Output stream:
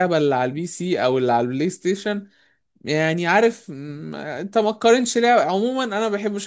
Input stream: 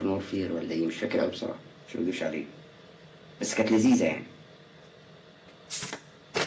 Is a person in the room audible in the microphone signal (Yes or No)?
Yes